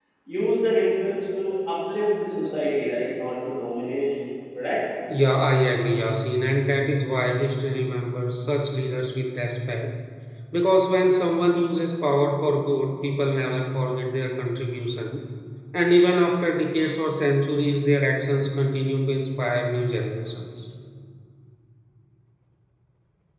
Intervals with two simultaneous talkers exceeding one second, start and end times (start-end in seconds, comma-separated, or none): none